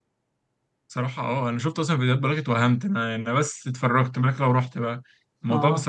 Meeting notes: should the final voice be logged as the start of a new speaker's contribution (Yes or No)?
No